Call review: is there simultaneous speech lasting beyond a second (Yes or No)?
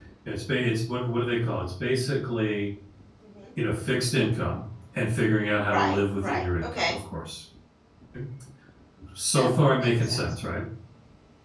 Yes